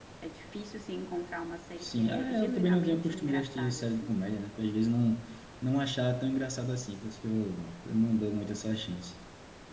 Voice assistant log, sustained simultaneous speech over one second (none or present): present